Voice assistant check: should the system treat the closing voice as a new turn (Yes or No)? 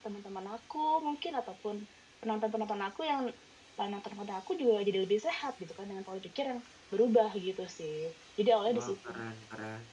Yes